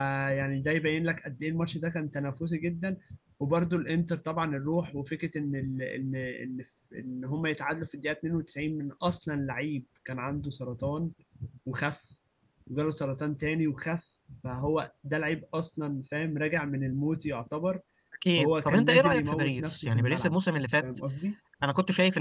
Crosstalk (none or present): present